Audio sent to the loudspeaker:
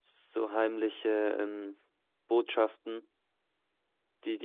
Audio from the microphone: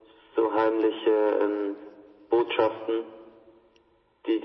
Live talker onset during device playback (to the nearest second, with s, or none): none